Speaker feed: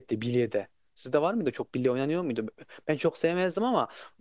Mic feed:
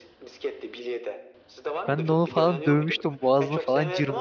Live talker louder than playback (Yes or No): Yes